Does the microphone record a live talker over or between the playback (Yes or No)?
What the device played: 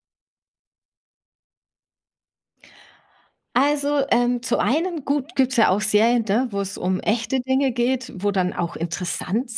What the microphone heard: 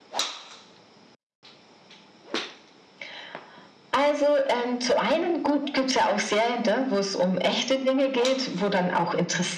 No